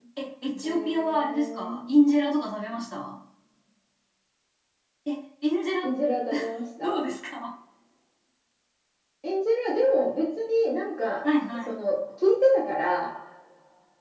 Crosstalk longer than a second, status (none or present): present